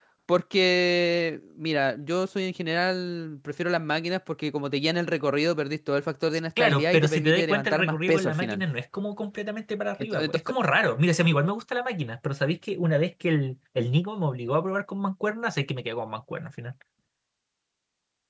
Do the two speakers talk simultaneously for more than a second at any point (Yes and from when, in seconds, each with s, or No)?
Yes, from 6.6 s